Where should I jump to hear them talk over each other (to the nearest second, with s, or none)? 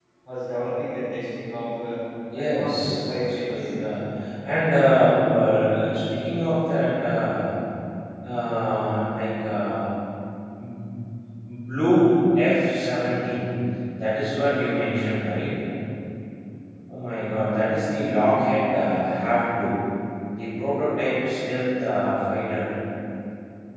2 s